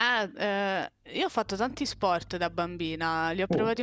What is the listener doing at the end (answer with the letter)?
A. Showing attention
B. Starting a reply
A